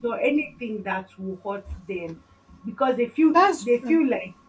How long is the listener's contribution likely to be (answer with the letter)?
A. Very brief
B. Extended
A